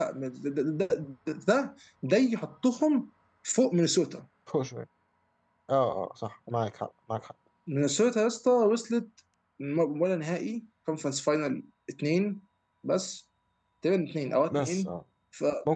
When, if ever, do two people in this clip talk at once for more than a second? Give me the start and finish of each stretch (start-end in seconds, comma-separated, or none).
none